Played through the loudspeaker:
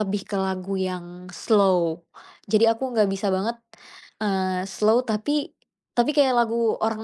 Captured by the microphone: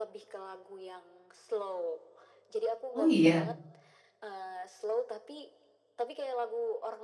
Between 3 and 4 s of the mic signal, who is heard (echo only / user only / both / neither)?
both